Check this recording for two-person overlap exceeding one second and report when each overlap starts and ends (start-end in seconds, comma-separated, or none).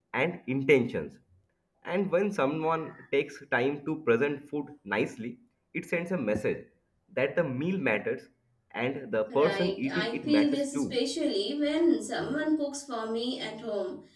9.3-11.0